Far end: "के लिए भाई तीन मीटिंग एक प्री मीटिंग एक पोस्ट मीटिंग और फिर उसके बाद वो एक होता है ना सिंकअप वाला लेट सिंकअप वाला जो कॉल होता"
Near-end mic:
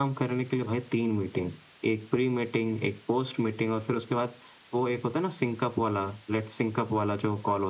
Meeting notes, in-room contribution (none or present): none